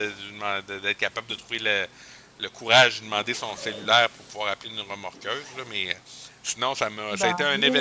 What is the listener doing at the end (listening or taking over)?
listening